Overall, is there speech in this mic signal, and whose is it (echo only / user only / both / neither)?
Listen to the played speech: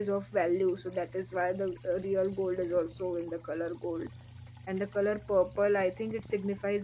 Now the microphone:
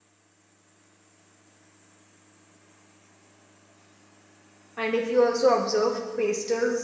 user only